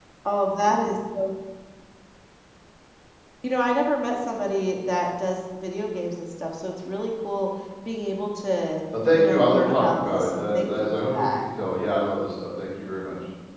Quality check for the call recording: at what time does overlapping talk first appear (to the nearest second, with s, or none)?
9 s